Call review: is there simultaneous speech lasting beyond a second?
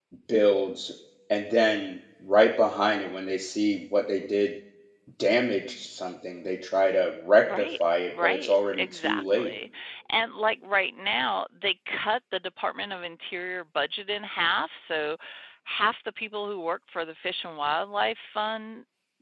Yes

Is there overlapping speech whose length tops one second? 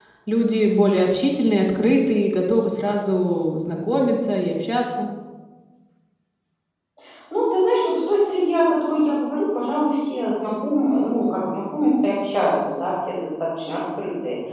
No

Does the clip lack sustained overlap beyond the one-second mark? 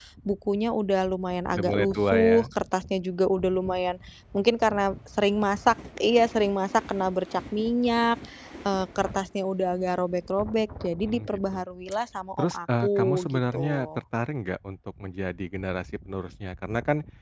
No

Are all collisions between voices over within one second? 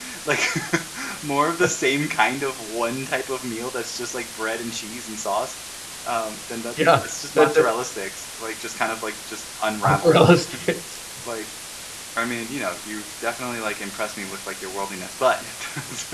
Yes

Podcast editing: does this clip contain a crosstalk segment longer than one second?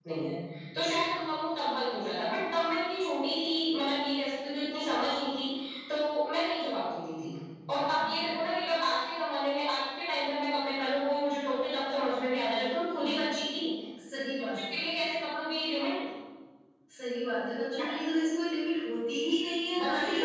No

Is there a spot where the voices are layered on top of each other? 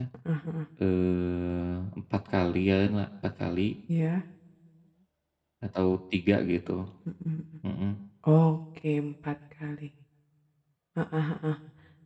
No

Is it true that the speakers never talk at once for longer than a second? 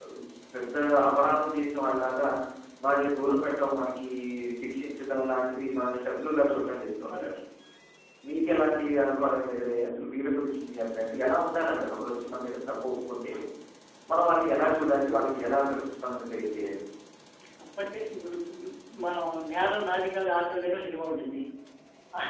Yes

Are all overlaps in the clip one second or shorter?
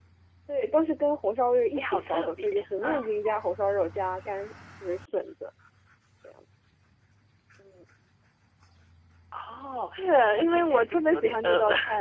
No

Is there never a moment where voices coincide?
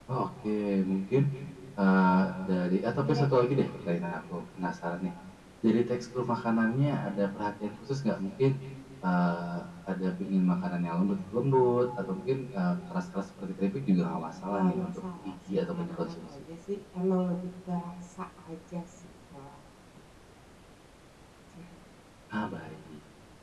No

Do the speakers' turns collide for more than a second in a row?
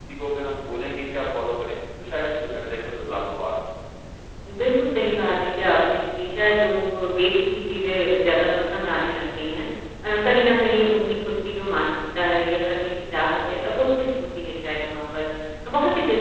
No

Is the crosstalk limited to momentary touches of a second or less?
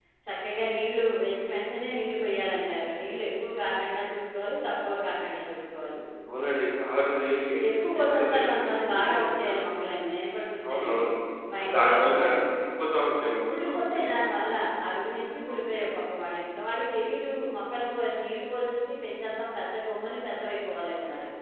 No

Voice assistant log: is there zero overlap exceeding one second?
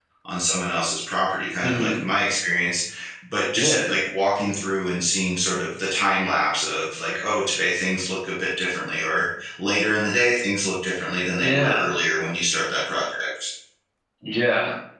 Yes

